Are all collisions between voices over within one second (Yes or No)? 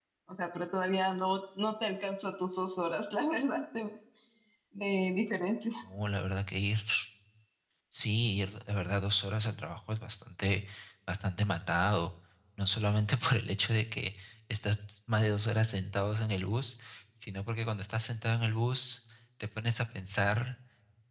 Yes